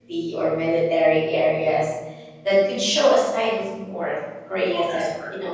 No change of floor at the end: Yes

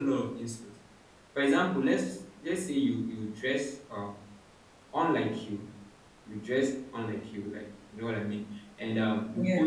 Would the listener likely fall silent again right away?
Yes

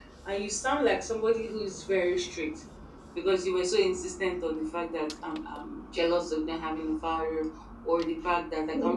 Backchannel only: Yes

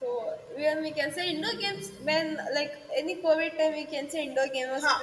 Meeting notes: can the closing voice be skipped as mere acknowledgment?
No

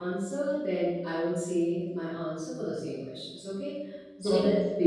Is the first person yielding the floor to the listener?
No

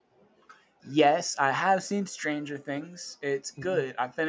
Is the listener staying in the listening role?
Yes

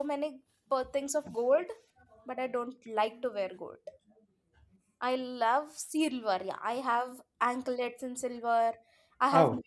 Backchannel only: Yes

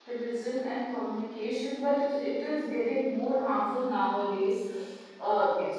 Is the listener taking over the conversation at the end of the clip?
No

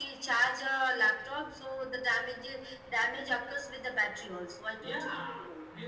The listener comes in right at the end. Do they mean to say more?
Yes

